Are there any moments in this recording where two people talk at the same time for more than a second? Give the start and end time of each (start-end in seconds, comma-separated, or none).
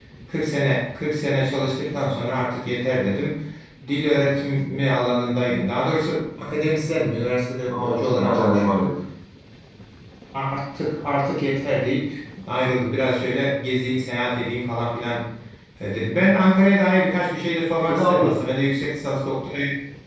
7.7-8.9